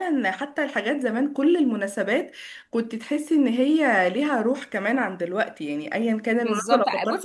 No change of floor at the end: No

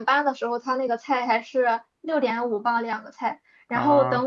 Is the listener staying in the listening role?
Yes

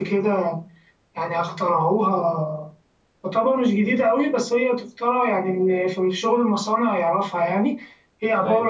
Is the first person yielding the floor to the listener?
Yes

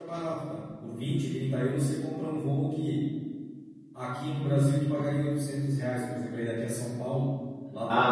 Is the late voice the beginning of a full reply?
Yes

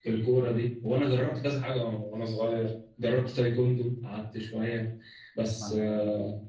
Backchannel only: Yes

